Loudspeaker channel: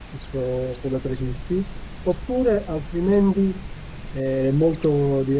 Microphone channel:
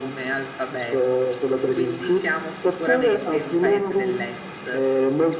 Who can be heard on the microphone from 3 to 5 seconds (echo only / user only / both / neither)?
both